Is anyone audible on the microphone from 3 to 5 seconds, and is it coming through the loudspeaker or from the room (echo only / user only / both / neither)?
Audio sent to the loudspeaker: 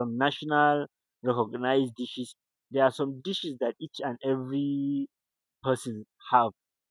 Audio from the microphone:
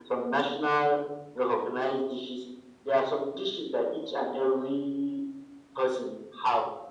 echo only